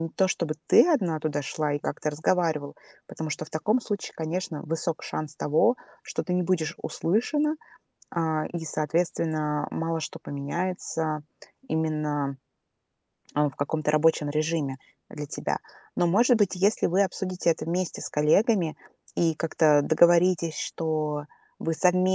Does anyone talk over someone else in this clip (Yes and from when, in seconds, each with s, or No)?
No